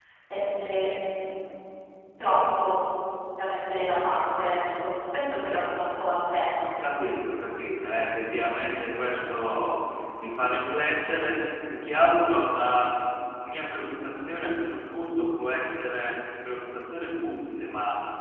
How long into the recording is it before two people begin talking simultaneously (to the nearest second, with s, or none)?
none